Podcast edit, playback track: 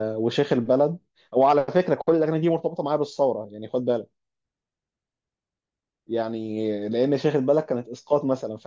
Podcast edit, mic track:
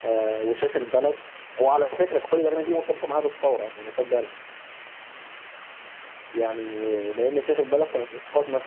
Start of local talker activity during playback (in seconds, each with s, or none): 2.6 s